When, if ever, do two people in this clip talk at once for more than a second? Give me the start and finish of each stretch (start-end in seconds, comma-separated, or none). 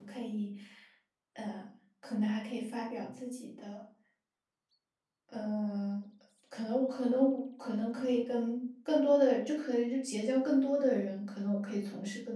none